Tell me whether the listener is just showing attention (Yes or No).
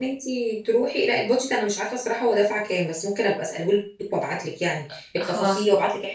Yes